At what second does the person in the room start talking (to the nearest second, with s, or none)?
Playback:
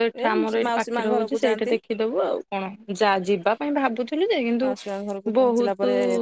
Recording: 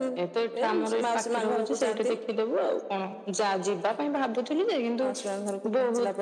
none